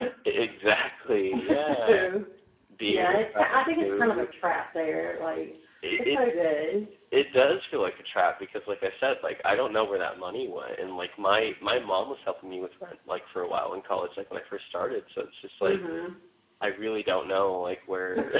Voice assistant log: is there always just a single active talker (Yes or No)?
No